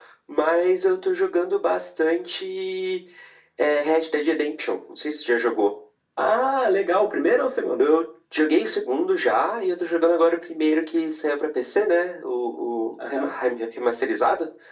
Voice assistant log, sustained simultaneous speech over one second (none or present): none